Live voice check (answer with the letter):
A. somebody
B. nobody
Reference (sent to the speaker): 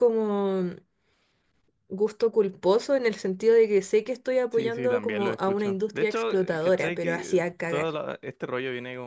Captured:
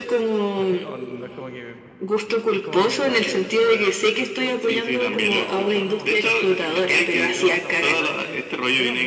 A